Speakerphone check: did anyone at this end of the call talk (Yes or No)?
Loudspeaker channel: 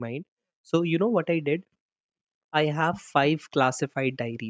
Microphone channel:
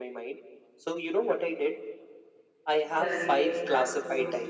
Yes